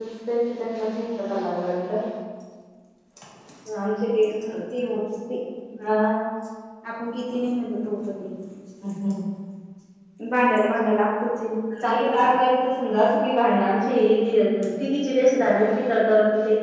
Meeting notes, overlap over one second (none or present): none